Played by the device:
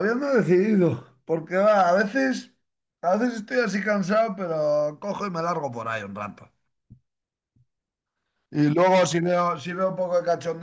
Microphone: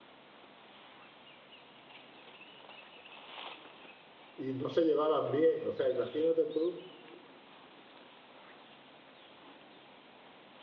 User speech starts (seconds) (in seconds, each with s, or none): 4.3 s